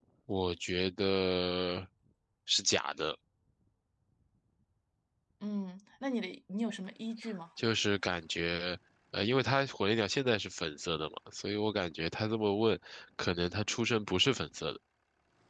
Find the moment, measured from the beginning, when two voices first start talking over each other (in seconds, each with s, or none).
none